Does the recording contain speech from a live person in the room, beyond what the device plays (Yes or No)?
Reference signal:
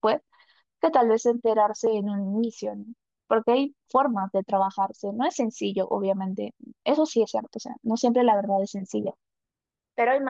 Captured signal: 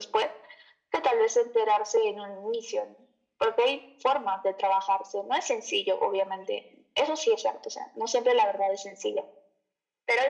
No